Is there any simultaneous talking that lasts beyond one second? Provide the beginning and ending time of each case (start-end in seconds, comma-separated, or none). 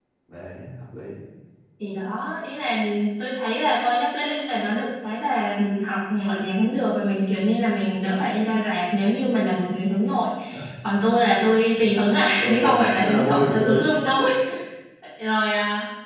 12.4-13.8